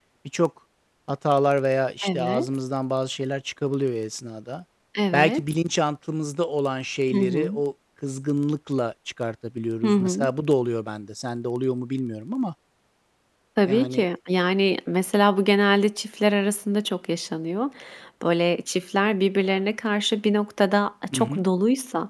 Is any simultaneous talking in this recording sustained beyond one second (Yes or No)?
No